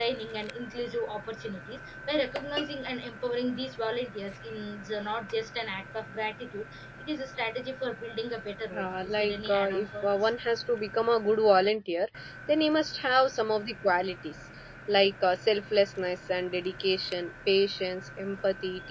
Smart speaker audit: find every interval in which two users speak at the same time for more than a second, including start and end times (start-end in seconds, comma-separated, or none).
8.8-10.3